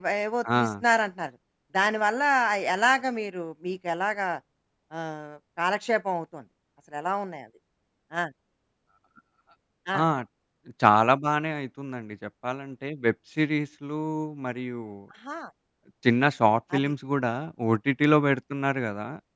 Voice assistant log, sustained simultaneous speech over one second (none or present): none